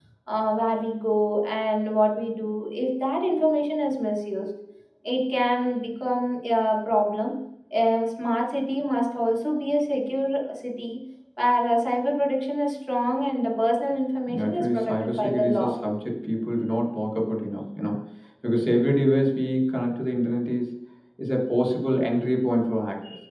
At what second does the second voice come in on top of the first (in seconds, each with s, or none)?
14.3 s